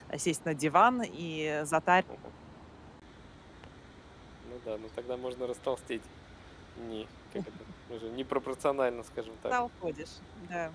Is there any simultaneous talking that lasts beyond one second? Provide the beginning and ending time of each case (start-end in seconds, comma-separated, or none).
none